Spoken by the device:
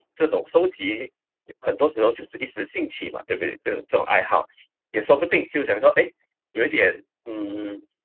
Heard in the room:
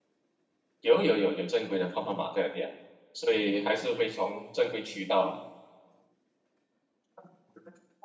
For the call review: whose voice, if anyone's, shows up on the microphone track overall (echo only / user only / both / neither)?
user only